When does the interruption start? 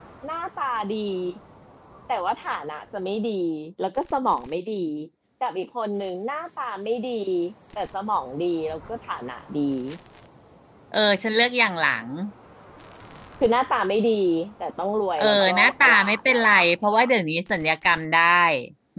15.2 s

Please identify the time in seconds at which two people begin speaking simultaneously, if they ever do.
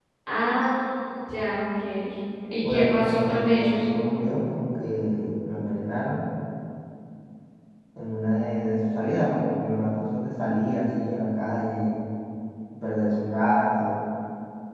2.6 s

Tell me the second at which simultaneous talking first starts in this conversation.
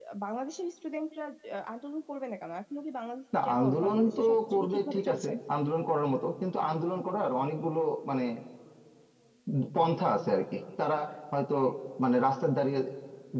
3.3 s

